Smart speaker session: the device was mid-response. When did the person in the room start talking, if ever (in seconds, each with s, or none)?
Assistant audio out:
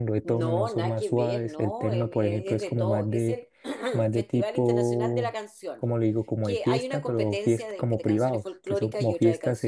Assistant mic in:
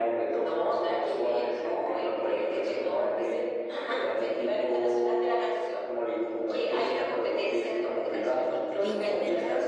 8.8 s